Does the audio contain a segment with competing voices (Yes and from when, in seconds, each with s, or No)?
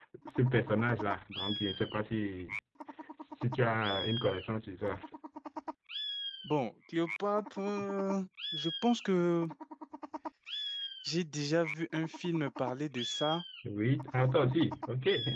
No